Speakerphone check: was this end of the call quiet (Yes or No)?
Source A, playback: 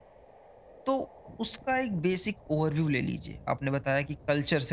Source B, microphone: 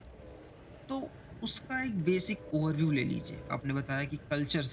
Yes